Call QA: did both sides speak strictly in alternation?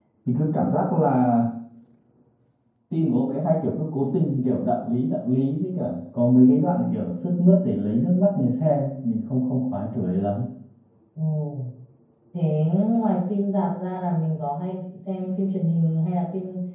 Yes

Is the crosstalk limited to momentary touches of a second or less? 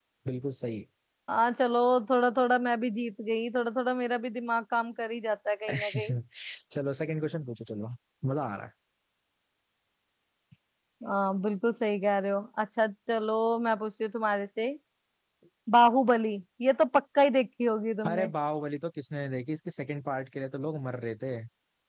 Yes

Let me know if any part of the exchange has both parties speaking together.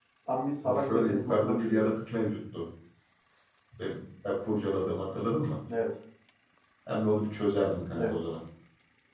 Yes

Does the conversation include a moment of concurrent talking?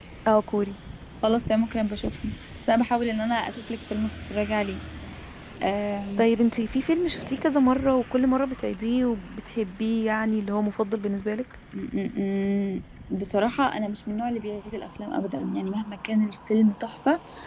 No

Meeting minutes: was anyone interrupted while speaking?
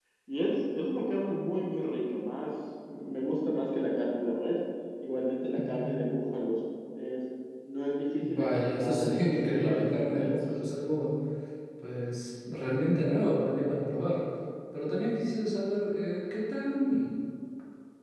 Yes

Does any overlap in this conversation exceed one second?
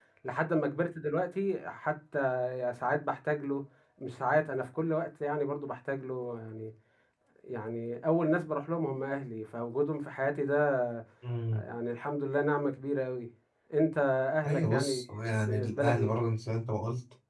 Yes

